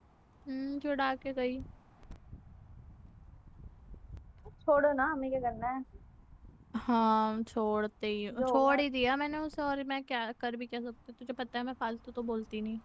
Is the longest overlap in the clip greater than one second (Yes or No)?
No